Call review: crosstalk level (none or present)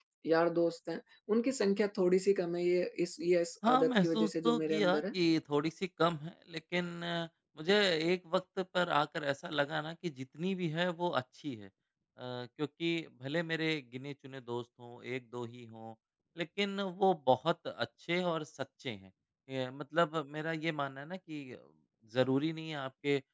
present